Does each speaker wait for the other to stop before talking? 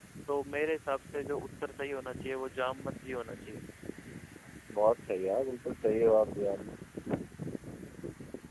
Yes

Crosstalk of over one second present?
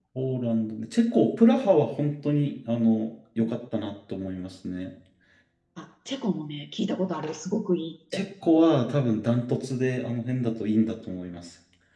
No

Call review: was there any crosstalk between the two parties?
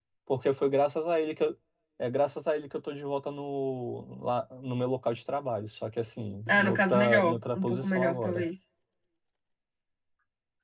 Yes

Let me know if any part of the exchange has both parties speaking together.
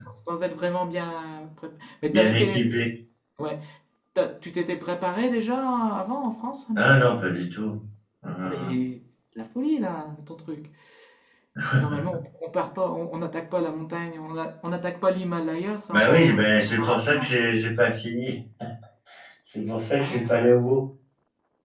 Yes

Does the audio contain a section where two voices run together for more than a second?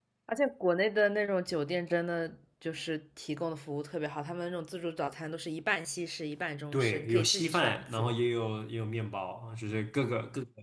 Yes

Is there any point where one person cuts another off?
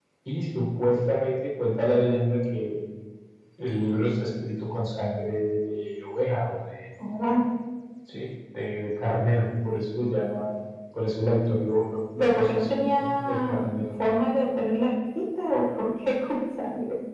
Yes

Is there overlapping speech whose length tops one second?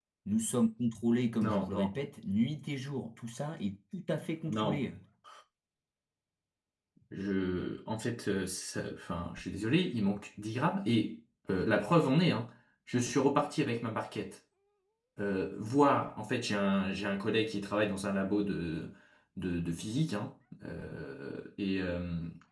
No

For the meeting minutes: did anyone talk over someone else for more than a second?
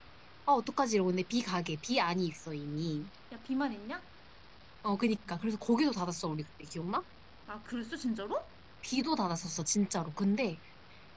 No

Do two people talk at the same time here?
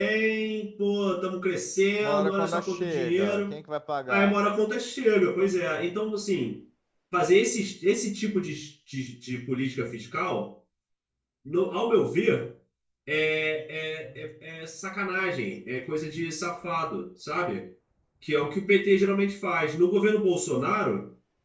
Yes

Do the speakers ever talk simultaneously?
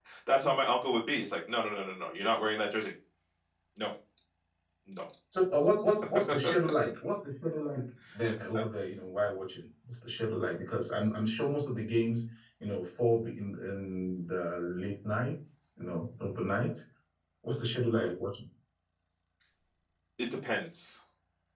No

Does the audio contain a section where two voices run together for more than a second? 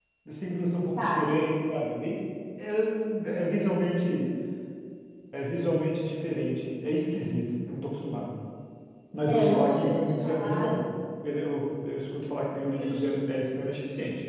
Yes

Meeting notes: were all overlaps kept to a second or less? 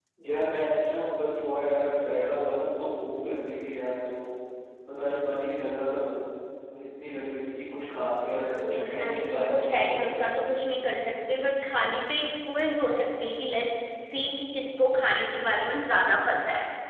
No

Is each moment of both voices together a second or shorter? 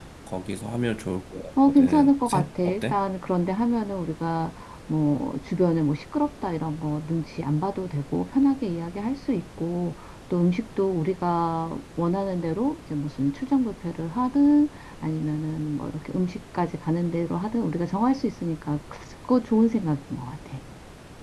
No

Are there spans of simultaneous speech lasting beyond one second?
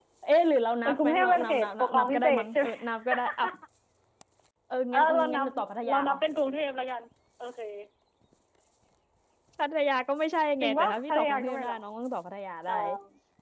Yes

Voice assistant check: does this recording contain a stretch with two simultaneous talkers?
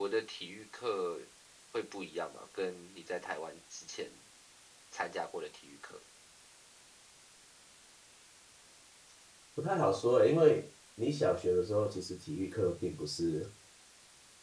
No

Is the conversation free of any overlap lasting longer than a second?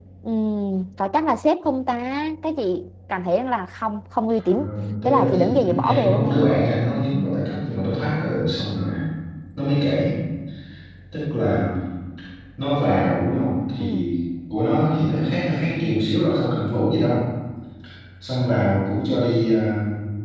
No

